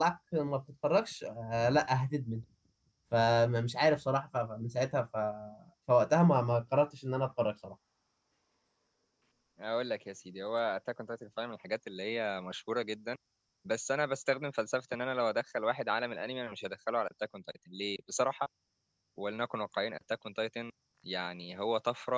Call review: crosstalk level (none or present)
none